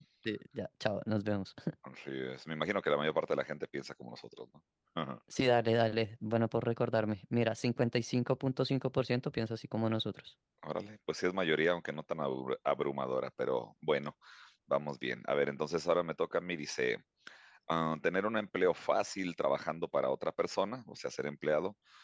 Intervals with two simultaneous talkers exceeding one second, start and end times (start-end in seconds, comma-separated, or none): none